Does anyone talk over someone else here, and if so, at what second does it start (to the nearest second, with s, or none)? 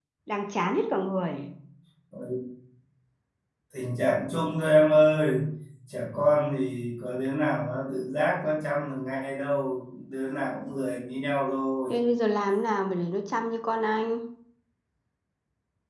none